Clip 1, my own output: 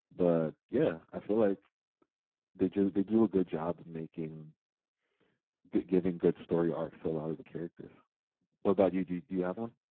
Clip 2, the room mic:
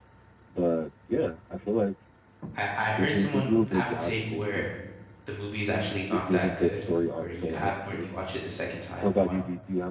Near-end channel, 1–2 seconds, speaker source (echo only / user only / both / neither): echo only